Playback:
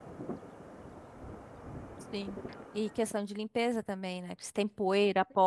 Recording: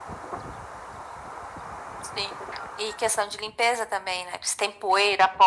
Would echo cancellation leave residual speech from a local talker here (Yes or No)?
No